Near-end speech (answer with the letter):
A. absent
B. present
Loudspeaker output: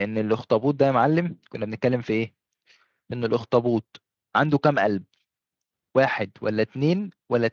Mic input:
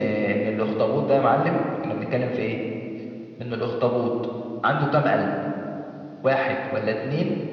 A